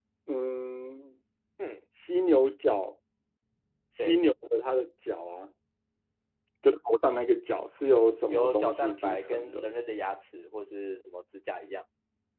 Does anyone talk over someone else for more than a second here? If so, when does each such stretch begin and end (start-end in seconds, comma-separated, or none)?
8.3-9.7